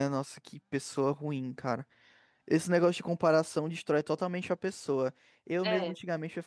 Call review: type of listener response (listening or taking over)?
listening